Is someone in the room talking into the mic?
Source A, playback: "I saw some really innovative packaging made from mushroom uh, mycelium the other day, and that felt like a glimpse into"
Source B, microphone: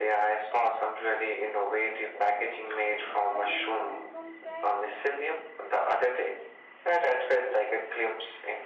Yes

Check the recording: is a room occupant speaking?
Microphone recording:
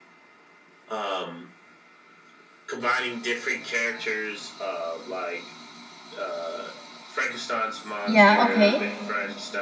Yes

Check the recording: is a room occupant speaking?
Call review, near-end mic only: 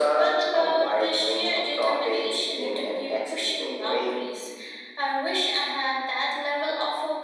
No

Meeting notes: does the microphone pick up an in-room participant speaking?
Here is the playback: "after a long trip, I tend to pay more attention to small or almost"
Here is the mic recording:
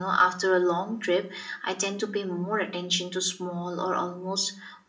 No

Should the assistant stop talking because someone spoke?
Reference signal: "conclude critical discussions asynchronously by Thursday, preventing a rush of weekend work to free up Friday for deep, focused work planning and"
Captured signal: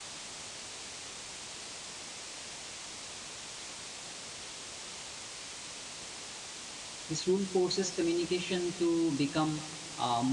Yes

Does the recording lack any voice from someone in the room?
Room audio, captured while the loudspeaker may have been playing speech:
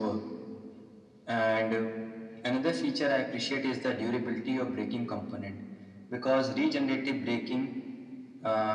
Yes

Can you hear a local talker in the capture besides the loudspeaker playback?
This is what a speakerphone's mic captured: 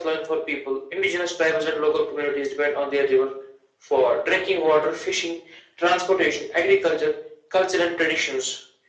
No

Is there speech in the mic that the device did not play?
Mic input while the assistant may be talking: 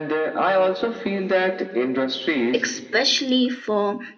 Yes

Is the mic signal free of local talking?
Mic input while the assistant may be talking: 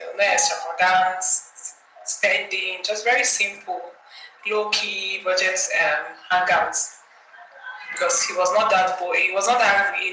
Yes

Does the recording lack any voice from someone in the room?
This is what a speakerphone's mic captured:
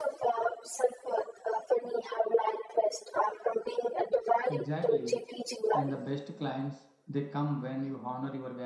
No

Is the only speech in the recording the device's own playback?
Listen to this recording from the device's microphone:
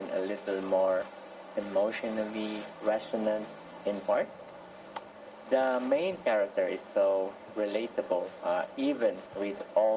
Yes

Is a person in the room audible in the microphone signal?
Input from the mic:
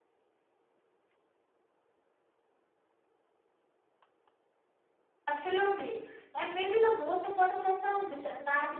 Yes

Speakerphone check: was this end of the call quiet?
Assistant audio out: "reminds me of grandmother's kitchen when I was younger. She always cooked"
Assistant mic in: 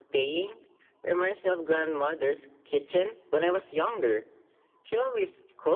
Yes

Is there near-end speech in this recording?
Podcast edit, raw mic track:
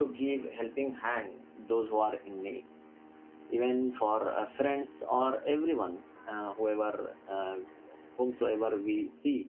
Yes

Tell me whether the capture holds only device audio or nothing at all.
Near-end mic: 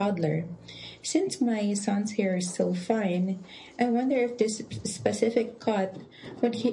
Yes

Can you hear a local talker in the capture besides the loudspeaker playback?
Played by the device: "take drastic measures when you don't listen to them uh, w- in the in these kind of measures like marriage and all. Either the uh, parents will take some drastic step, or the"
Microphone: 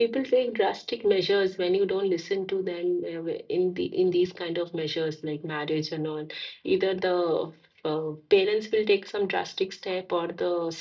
No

